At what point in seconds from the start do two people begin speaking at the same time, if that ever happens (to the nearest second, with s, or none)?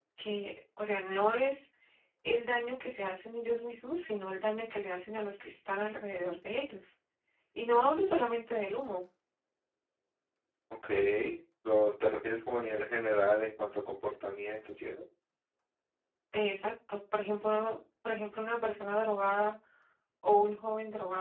none